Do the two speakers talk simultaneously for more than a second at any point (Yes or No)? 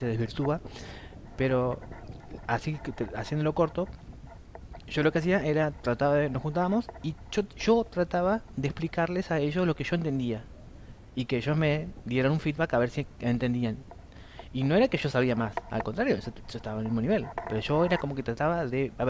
No